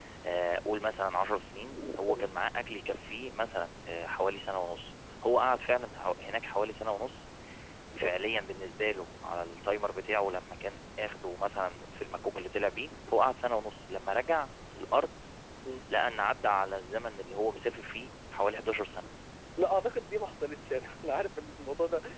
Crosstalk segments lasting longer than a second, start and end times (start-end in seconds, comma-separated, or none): none